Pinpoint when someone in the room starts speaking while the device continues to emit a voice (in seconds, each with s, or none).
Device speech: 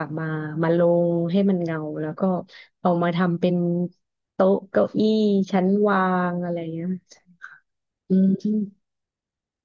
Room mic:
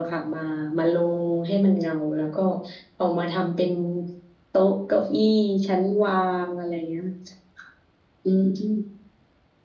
none